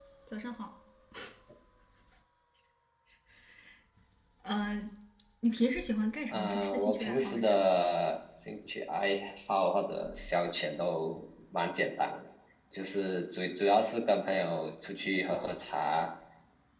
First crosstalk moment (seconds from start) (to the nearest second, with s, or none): 6 s